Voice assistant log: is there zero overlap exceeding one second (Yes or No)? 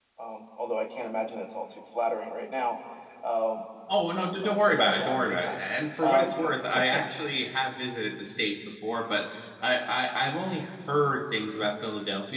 No